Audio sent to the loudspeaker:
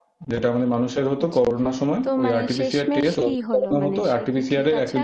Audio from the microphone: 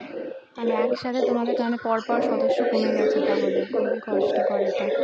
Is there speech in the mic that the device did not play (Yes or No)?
Yes